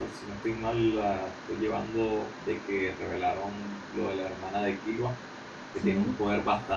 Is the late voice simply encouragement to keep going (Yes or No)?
Yes